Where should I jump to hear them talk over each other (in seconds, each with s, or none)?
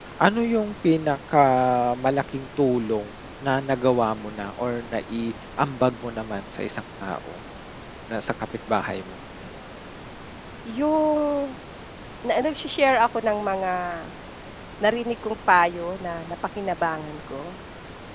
none